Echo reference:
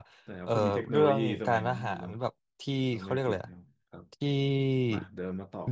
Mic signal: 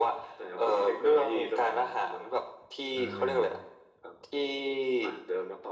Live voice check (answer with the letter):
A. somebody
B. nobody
A